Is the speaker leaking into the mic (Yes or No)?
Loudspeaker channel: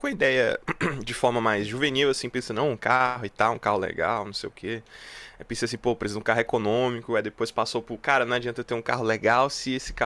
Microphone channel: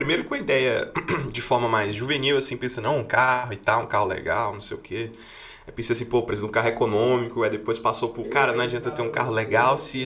Yes